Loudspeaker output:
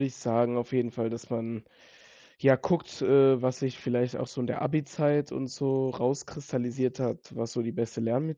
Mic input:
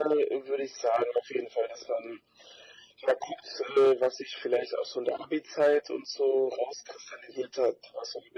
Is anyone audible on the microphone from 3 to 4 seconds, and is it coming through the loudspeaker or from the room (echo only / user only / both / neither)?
echo only